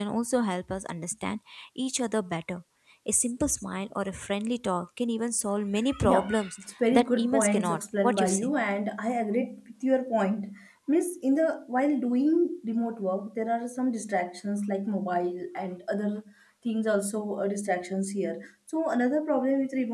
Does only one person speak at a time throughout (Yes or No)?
No